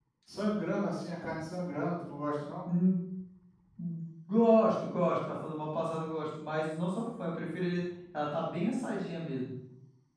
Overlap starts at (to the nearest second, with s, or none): none